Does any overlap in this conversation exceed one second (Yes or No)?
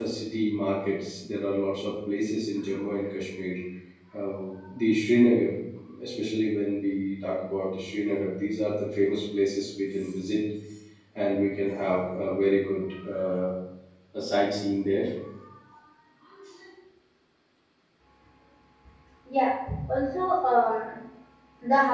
No